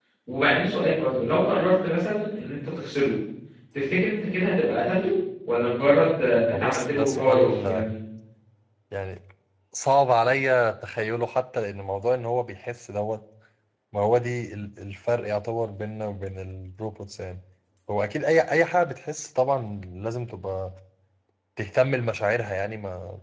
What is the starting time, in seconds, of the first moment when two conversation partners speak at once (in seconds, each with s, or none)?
6.5 s